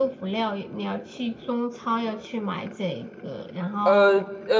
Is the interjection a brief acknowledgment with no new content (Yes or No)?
No